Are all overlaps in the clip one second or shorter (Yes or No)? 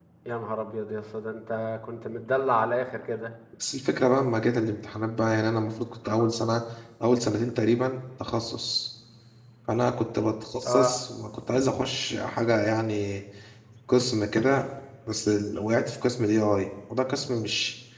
Yes